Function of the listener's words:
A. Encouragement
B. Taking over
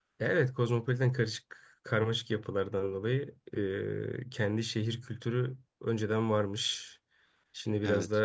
A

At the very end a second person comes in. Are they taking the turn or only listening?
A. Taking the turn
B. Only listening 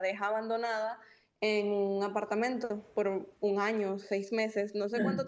B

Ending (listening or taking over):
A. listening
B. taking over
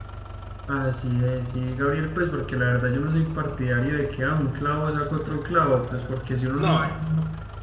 A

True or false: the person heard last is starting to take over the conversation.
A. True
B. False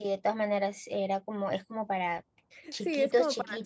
A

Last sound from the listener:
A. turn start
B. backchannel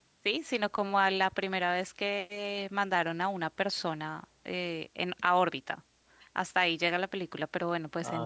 B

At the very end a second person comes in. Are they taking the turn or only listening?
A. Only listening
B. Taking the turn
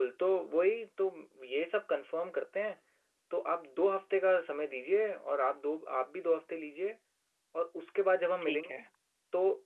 A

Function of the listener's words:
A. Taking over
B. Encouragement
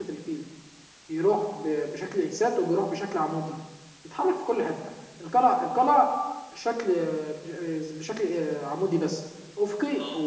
B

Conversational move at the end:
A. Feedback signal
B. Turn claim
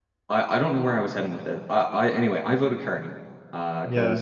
A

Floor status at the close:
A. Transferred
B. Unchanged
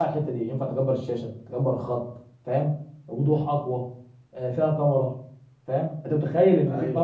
B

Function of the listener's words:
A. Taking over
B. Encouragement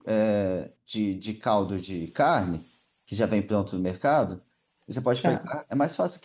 B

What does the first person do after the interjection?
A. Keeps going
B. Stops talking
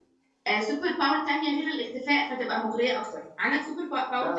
B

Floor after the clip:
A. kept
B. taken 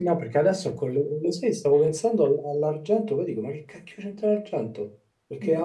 A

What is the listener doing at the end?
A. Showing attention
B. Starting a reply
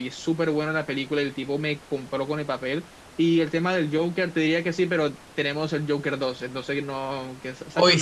B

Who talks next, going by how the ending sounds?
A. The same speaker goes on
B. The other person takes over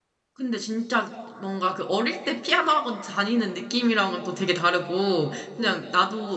A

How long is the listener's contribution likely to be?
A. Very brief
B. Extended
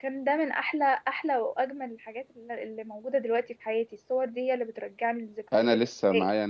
B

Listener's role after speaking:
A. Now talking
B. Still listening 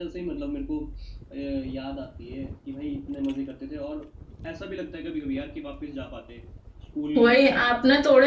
A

